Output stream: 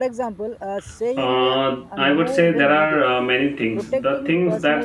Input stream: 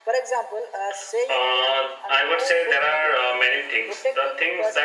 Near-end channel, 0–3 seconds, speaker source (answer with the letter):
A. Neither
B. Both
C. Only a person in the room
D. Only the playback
D